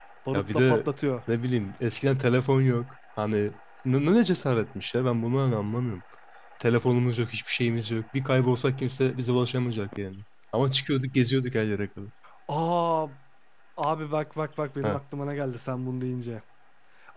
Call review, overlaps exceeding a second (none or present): none